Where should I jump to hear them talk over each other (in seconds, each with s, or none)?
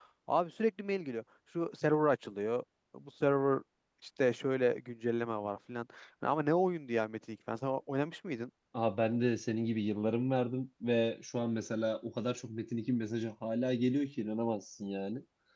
none